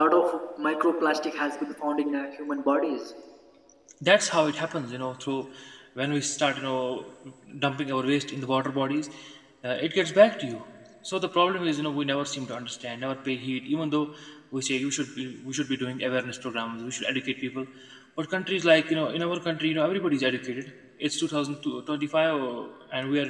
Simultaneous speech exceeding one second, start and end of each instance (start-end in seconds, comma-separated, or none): none